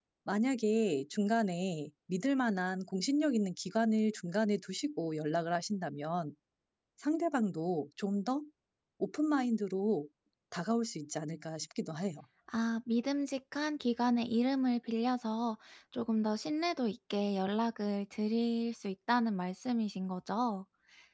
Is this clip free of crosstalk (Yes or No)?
Yes